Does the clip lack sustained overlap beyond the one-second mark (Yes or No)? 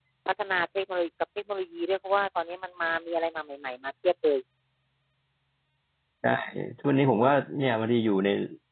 Yes